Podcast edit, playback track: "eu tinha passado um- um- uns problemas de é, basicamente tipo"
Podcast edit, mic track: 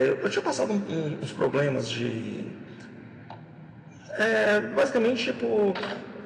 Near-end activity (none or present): none